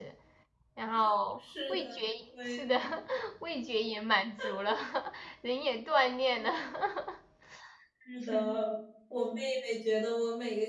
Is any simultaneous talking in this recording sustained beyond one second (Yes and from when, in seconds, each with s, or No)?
No